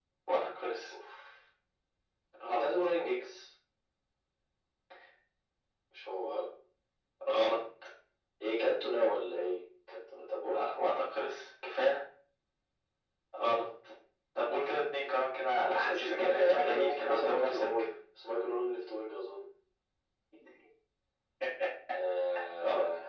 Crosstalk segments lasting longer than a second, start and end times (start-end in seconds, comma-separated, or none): 15.6-17.7